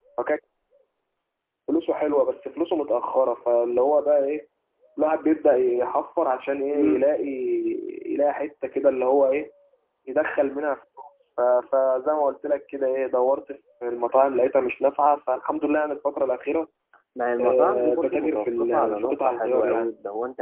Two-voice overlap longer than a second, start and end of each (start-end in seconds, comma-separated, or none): 17.4-19.6